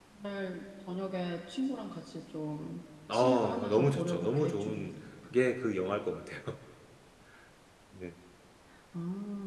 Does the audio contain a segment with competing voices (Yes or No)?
Yes